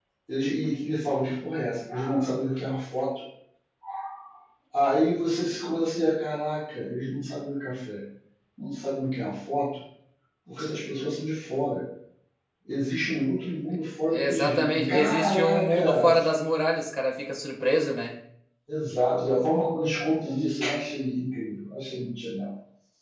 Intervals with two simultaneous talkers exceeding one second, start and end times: 14.1-16.1

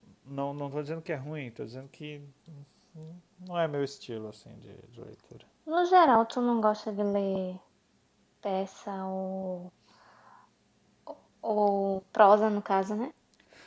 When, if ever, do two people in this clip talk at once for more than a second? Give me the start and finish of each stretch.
none

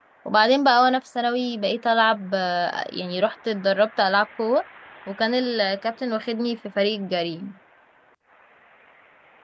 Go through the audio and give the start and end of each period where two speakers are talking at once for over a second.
none

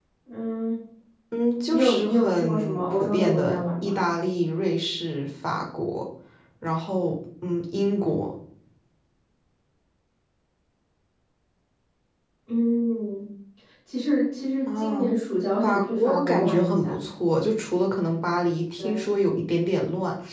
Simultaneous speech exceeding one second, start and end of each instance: 1.7-4.0, 15.6-17.0

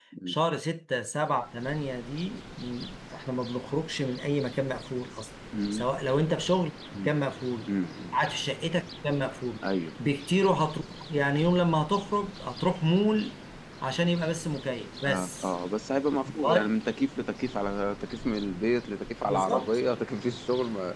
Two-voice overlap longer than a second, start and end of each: none

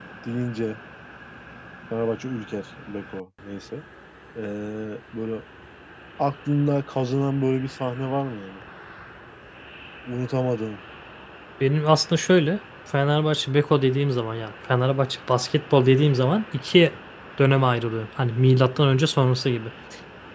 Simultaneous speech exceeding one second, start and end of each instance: none

